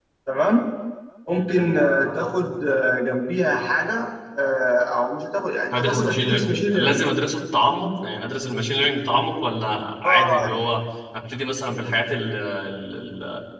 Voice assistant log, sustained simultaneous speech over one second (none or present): present